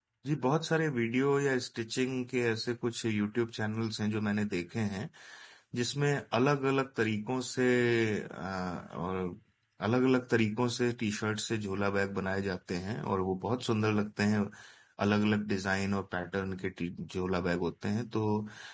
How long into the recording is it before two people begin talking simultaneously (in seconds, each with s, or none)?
none